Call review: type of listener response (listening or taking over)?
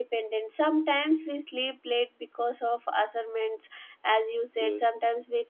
listening